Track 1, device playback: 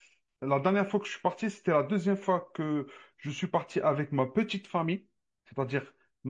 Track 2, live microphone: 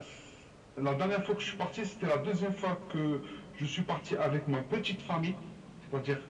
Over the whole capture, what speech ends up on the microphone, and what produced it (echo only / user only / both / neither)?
echo only